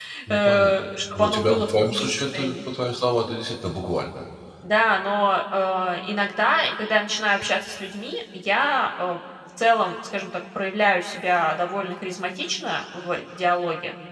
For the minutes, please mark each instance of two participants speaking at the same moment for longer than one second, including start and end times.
1.1-2.6

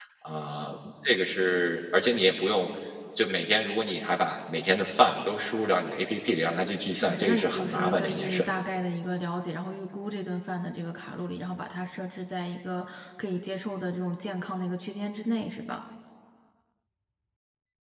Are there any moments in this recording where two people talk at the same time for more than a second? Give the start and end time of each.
6.9-8.4

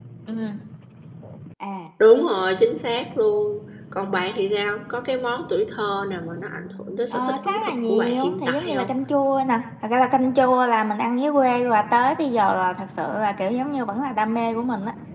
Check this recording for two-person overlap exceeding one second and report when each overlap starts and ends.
7.1-8.9

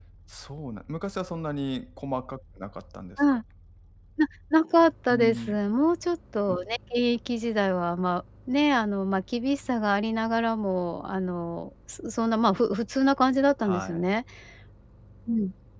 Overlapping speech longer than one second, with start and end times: none

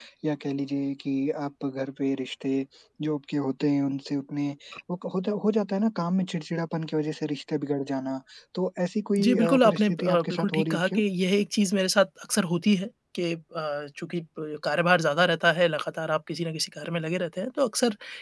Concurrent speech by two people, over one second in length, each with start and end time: 9.2-11.0

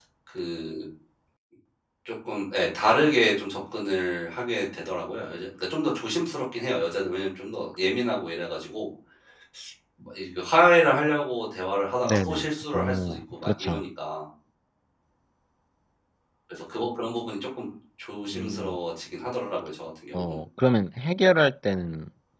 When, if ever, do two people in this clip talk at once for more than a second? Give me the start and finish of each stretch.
12.0-13.8

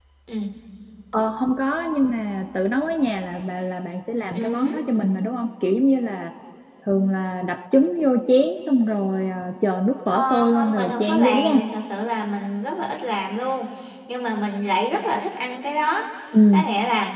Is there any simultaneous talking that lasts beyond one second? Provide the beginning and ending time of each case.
10.1-11.6

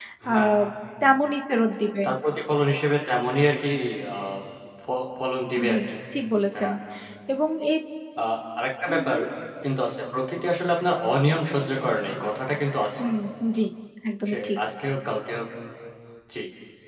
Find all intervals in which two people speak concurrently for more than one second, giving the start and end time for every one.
none

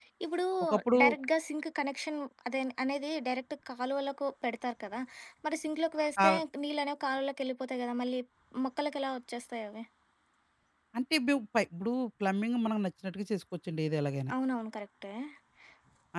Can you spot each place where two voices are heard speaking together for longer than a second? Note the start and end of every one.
none

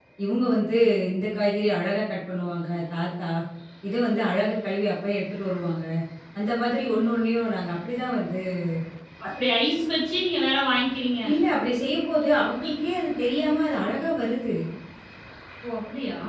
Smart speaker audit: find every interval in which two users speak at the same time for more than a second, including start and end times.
none

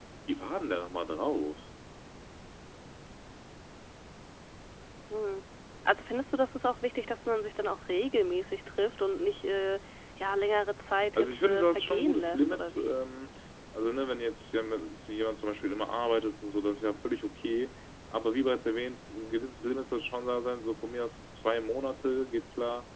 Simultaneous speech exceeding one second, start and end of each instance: 11.2-12.9

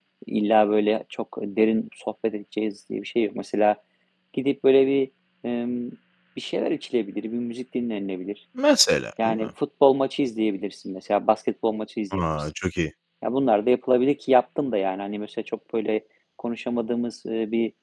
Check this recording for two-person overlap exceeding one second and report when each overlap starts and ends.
none

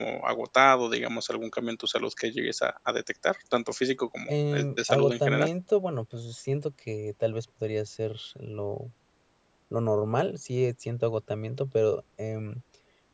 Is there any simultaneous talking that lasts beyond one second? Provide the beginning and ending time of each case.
4.3-5.5

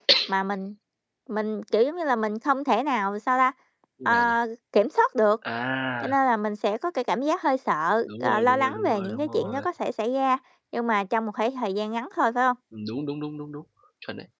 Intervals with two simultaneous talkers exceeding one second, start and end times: 8.1-9.7

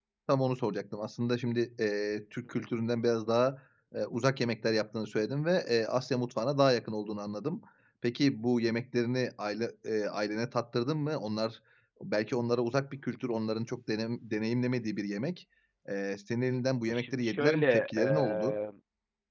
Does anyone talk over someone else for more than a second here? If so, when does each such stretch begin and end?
16.9-18.6

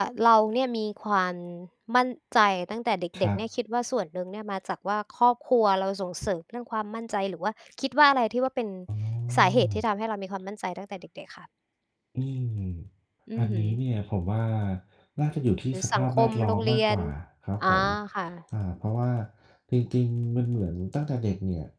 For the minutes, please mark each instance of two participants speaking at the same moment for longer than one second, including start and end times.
15.7-17.0

